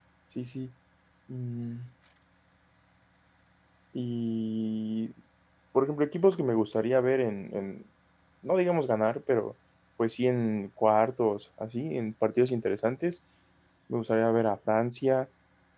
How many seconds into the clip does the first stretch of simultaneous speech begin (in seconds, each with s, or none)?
none